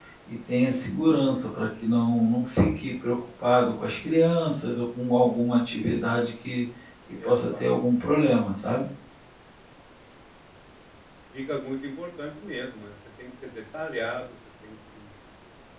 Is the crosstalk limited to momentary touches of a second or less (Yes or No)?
Yes